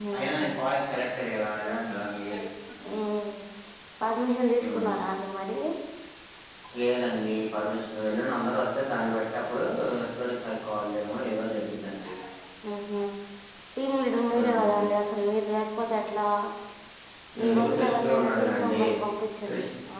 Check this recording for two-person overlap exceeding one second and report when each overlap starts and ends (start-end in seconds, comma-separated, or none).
17.4-18.8